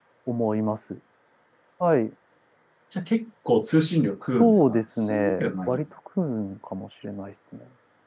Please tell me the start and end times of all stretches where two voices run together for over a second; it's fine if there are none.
4.4-5.8

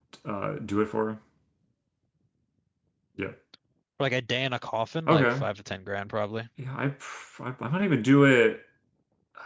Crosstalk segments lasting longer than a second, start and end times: none

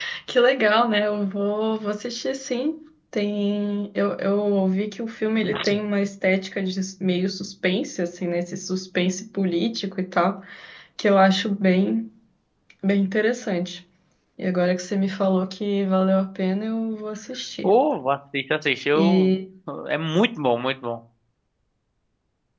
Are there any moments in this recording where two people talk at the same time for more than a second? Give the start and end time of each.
none

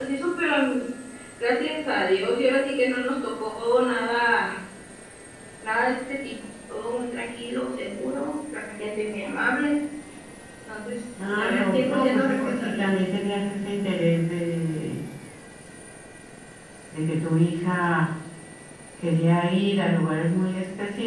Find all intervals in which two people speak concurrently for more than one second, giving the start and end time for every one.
11.3-12.8

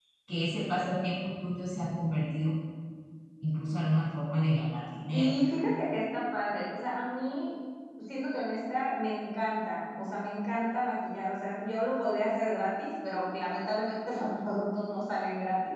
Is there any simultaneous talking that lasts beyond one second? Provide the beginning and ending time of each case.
none

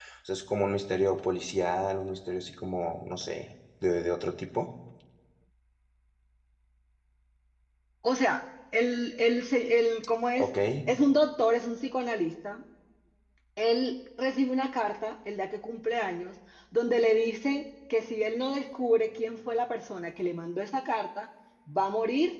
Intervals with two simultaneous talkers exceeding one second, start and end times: none

